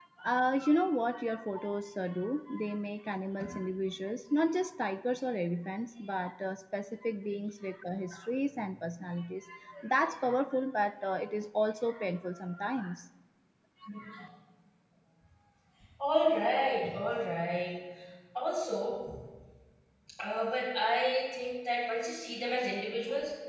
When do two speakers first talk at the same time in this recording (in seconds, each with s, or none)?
none